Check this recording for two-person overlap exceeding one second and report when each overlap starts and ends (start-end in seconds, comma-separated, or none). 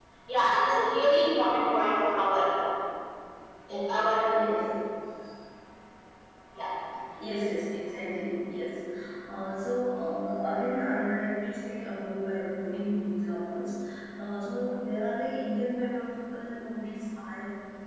none